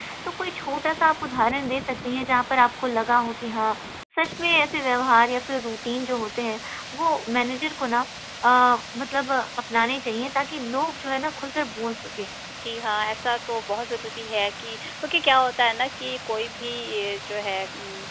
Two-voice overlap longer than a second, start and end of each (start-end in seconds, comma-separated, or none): none